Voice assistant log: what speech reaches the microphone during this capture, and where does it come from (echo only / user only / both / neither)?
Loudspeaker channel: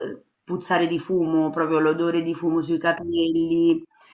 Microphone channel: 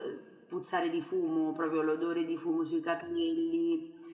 echo only